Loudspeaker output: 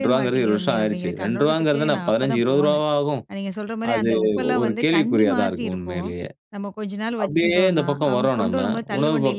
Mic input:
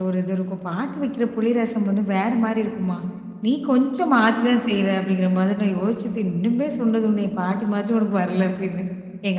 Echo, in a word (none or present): none